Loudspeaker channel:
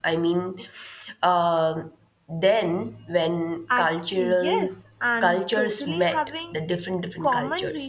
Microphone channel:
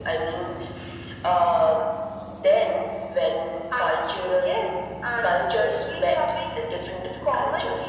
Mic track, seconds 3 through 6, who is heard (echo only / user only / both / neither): echo only